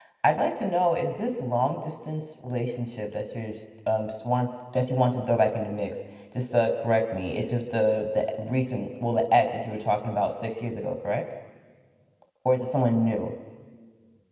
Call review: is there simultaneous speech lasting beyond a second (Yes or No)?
No